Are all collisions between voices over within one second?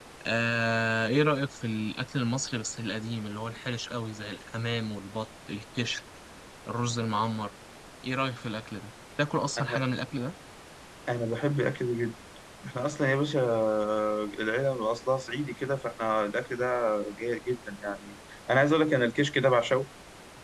Yes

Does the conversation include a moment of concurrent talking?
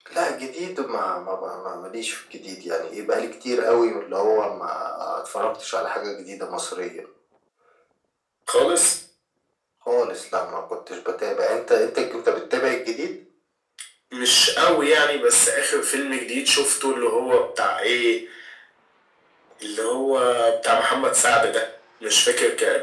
No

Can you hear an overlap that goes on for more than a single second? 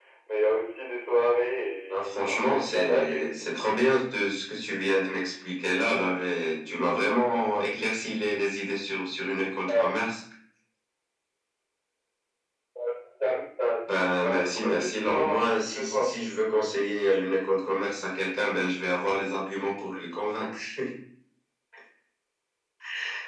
Yes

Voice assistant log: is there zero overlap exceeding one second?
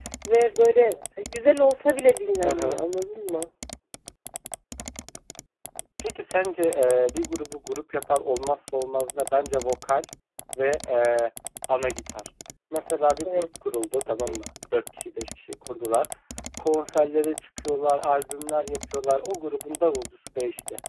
Yes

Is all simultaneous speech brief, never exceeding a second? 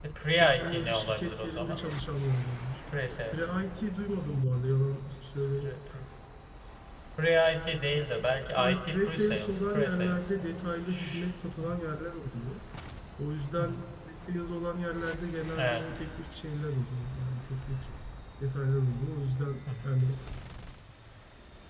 No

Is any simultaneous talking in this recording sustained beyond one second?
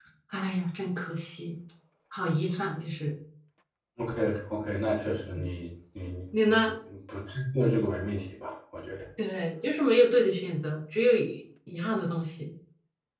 No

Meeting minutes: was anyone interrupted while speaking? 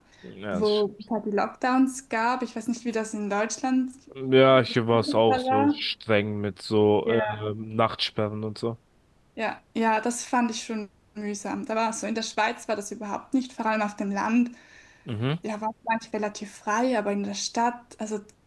Yes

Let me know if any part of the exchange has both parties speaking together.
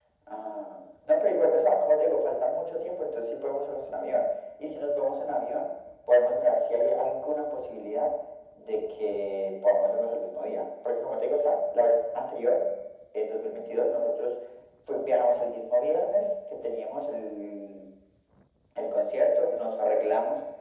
No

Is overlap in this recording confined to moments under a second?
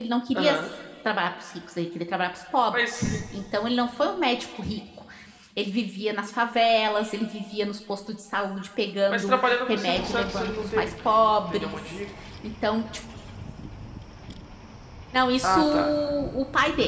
No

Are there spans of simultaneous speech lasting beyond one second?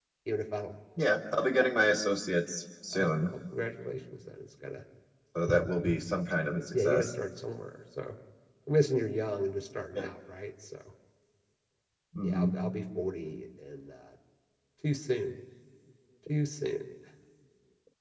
No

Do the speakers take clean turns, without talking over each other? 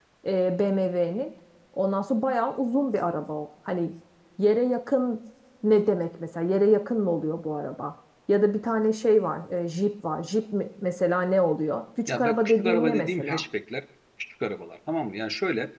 No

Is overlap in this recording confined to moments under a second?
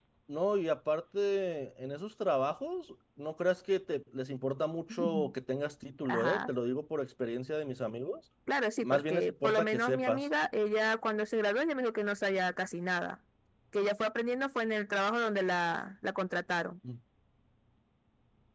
No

